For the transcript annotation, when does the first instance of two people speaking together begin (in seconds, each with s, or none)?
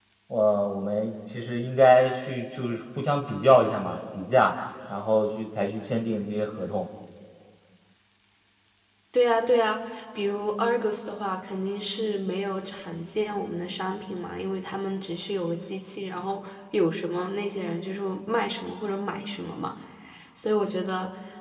none